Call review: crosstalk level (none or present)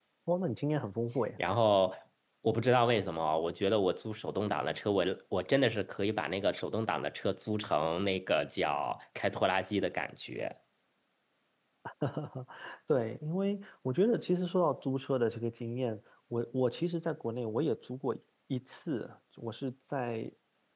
none